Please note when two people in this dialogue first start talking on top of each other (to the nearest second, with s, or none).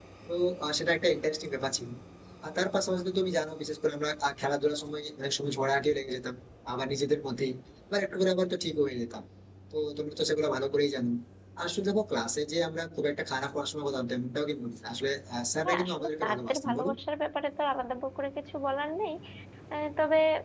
16 s